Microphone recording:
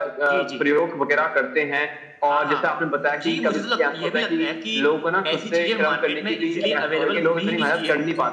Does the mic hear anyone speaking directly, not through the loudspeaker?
No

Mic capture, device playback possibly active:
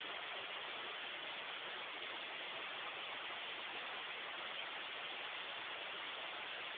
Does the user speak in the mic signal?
No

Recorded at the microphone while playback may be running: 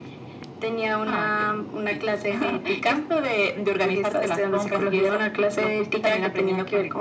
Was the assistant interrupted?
No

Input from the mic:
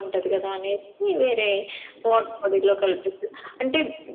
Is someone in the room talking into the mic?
No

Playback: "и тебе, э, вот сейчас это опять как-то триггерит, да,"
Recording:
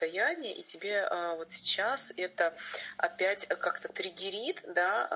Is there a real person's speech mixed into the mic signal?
No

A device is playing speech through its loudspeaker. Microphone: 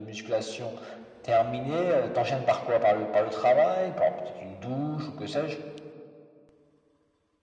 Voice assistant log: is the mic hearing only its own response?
Yes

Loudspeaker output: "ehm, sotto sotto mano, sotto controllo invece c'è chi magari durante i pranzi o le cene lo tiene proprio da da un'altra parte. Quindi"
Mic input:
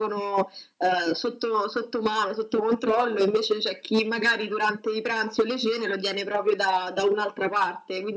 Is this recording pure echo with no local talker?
Yes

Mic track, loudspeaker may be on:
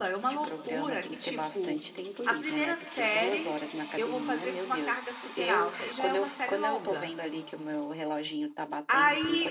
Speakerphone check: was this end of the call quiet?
No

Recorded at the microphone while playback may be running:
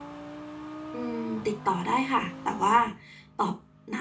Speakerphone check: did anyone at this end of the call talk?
Yes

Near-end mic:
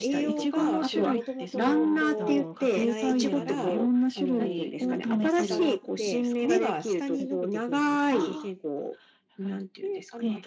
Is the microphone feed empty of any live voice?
No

